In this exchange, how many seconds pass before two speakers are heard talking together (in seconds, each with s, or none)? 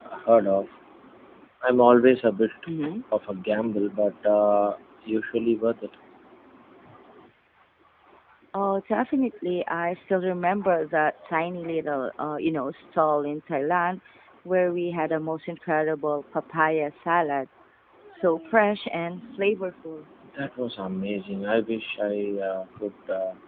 none